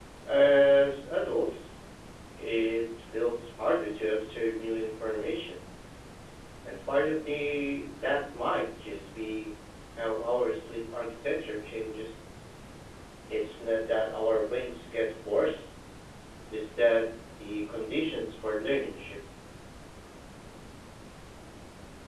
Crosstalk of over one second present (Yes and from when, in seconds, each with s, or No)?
No